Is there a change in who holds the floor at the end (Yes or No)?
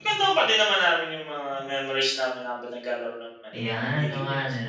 Yes